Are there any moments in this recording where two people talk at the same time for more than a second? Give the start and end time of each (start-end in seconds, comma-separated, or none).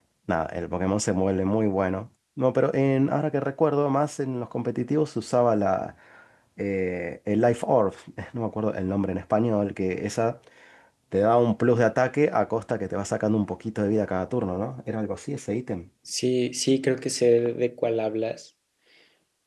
none